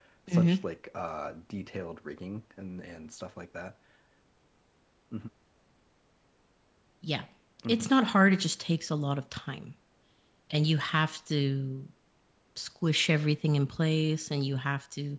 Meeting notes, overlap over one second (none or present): none